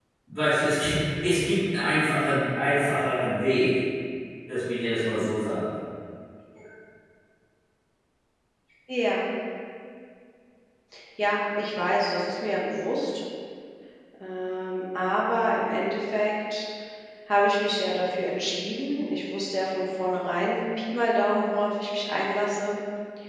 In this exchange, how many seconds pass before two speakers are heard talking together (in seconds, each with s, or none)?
none